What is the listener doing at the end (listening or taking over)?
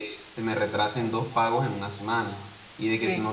listening